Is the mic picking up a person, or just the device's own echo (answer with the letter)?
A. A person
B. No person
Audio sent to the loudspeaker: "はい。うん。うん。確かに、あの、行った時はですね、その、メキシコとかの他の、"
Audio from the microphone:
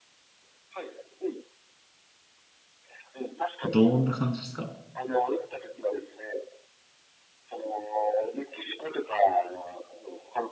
A